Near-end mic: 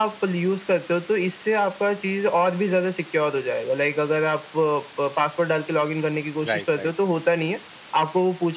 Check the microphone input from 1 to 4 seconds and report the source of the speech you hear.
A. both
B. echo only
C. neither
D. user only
B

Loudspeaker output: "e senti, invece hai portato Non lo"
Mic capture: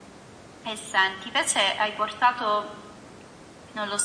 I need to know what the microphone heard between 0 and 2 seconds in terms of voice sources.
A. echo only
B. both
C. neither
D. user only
A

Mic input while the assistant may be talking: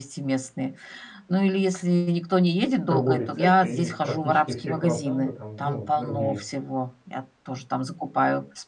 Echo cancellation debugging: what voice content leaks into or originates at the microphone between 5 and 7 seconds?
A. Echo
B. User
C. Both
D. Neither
C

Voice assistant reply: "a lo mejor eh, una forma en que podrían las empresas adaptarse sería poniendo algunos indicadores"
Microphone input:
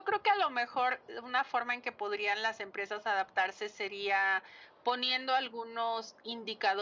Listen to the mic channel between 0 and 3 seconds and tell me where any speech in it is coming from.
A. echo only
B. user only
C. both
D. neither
A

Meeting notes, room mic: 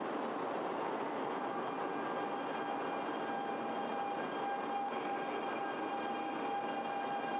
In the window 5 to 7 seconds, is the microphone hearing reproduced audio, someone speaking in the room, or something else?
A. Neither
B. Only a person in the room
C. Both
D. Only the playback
A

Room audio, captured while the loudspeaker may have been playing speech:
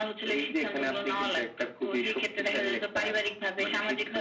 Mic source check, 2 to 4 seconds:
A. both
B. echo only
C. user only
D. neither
B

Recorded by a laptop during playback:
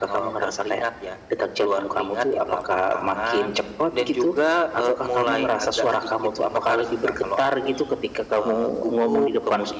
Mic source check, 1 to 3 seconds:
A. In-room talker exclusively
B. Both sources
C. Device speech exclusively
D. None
C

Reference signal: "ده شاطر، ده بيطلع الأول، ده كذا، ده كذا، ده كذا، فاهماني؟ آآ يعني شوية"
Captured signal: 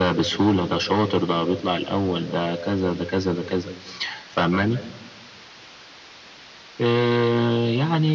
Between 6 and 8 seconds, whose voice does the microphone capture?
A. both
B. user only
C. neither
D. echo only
D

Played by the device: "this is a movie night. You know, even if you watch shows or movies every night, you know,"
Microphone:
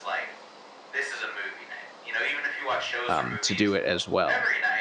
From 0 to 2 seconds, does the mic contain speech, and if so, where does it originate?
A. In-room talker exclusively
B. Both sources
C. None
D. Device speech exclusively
D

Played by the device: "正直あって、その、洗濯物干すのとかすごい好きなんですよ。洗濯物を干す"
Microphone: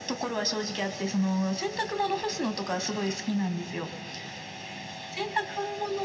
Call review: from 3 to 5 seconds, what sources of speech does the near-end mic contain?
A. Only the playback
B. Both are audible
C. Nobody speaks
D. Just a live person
A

